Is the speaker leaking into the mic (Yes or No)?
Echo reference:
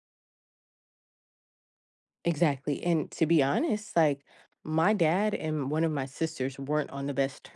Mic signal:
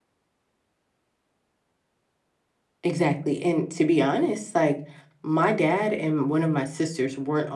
Yes